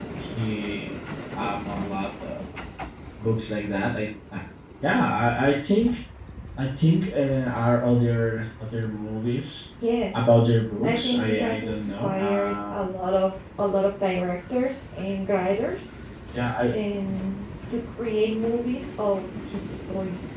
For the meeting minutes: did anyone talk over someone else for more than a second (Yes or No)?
Yes